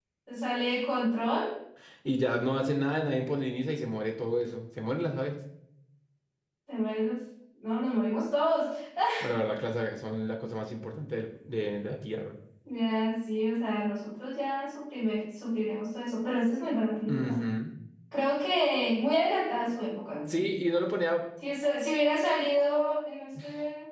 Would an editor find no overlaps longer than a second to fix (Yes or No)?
Yes